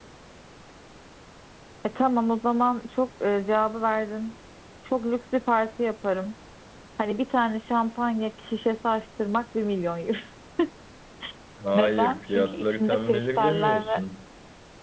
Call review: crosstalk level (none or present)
present